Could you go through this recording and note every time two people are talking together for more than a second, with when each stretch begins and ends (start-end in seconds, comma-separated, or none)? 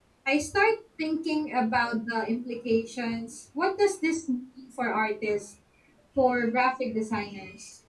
none